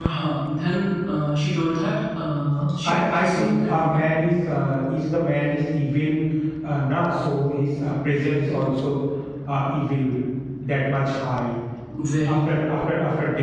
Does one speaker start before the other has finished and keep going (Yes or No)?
Yes